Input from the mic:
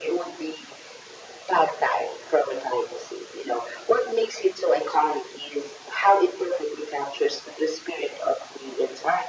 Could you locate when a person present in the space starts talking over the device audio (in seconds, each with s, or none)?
none